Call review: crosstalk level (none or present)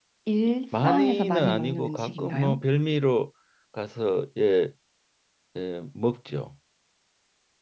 present